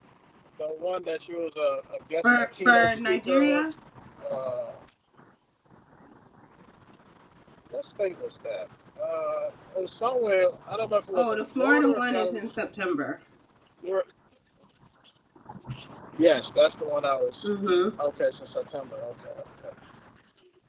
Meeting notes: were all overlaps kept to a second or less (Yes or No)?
No